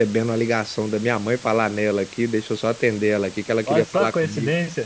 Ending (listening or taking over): taking over